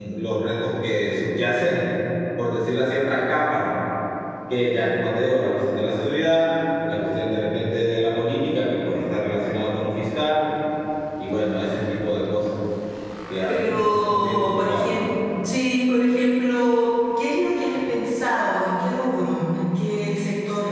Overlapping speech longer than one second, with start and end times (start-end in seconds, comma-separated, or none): 13.5-14.9